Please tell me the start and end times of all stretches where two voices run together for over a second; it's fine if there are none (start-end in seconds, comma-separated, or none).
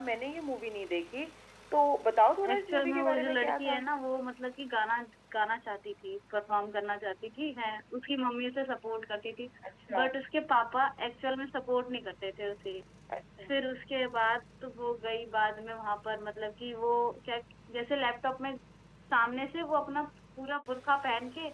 2.5-3.8